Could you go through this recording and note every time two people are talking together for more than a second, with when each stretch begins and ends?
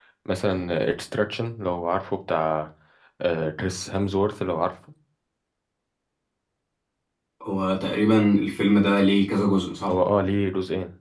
none

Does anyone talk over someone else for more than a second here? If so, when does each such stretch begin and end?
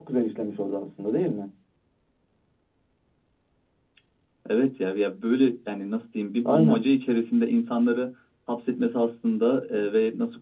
none

